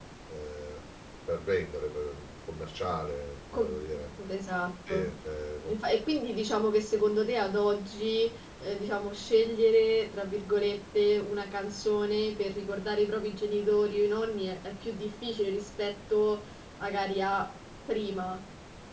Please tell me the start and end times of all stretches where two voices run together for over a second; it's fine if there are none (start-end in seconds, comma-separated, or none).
none